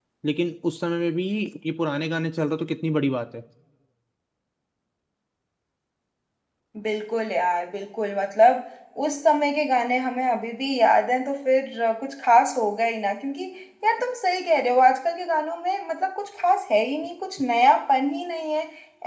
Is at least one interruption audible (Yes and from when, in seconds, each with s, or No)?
No